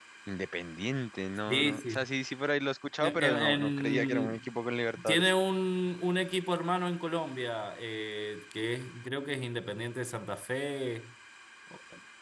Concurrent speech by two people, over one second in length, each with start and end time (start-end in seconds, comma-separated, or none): 3.0-4.4